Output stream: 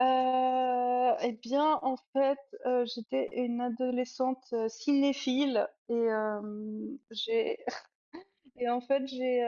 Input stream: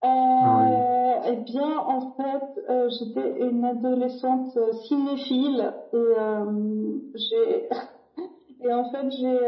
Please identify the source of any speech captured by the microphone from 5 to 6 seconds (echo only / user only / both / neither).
echo only